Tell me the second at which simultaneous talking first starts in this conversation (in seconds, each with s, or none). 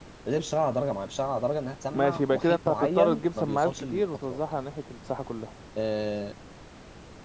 1.9 s